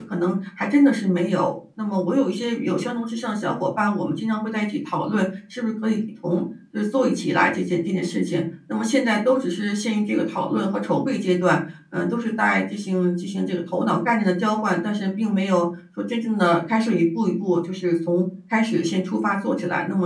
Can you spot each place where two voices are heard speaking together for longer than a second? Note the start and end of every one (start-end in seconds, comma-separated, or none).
none